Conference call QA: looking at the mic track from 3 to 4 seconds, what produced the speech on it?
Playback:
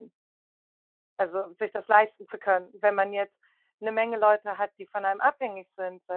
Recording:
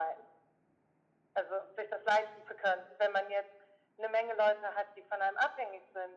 echo only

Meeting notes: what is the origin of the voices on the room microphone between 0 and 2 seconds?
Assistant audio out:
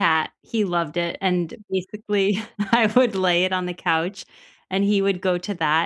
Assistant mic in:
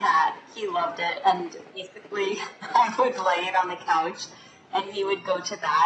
echo only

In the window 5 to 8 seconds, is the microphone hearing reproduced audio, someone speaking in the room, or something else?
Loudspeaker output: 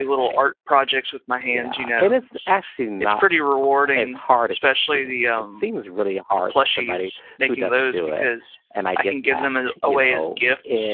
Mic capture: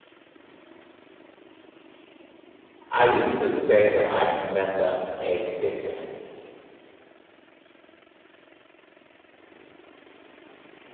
user only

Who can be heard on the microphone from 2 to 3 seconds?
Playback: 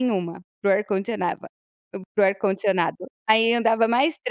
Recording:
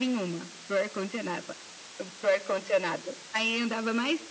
echo only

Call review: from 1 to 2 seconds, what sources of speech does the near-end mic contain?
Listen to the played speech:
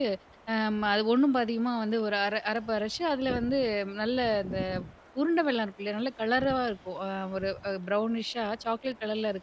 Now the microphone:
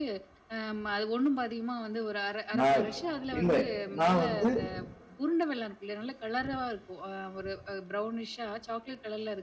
echo only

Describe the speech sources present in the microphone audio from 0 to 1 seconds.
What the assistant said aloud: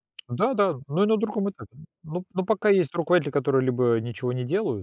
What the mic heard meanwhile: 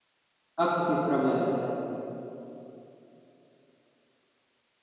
user only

